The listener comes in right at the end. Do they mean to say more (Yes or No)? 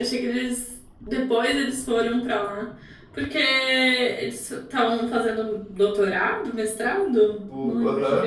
Yes